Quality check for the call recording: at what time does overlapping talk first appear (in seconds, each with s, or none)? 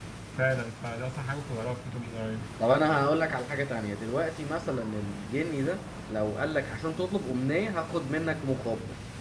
none